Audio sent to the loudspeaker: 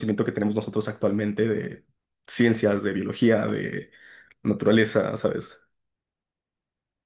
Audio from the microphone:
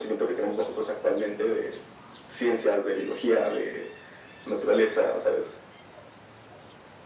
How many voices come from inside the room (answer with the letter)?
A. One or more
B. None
B